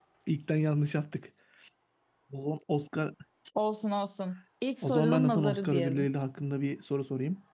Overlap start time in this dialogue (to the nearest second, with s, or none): 5 s